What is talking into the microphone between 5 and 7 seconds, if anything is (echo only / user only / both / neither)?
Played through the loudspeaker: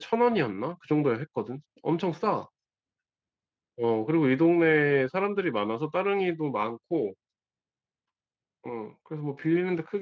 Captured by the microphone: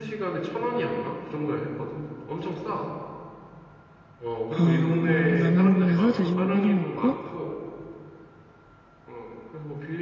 both